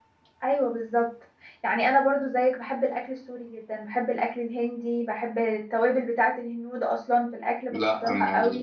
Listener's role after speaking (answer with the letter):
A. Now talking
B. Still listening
A